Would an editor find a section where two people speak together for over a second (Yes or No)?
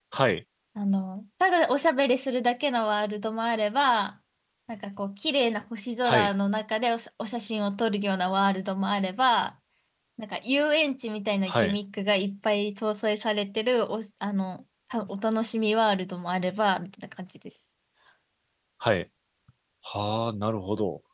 No